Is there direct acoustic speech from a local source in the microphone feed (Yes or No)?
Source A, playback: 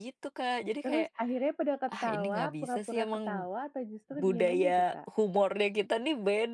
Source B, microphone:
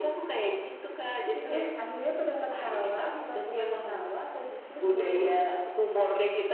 No